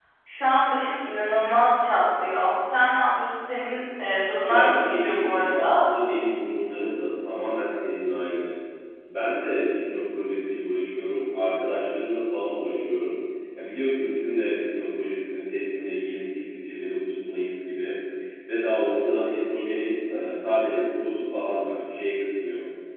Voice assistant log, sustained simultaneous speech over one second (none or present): present